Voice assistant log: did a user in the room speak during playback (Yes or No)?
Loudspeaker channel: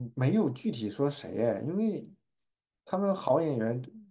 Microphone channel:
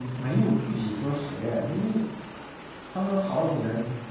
No